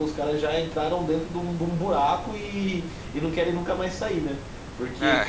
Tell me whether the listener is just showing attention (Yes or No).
Yes